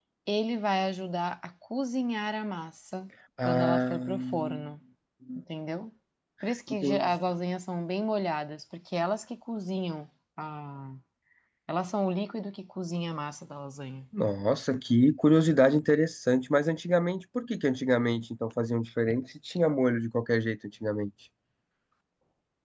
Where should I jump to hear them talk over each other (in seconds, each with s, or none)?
3.4 s